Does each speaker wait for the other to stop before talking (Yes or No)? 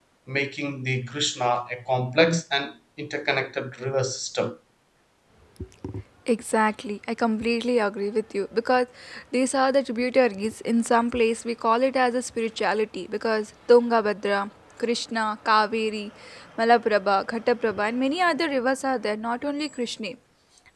Yes